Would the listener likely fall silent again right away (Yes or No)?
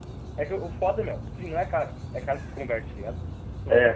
No